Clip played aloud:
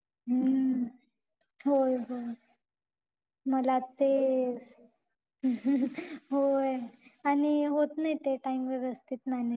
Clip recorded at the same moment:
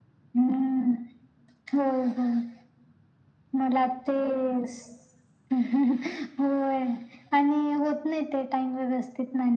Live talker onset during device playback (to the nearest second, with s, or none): none